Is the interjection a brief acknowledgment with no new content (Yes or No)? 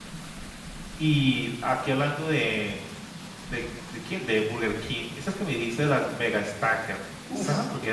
Yes